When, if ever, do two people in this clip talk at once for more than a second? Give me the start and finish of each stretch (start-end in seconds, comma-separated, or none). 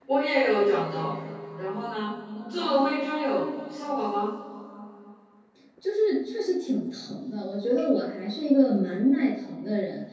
none